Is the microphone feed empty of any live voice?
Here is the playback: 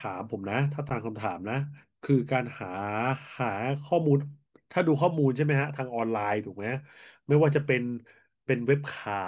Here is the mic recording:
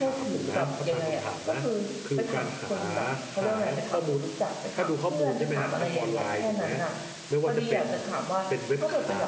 No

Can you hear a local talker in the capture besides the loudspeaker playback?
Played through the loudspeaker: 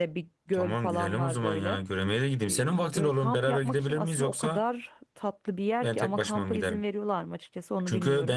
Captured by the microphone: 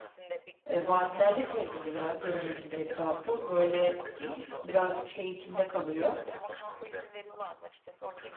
Yes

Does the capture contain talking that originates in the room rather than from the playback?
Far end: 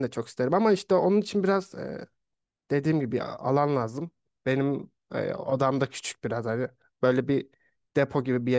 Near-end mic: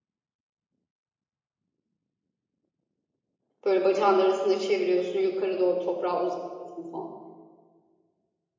Yes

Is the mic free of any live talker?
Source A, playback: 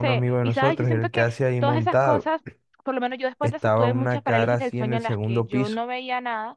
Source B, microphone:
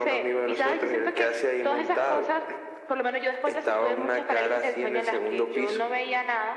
Yes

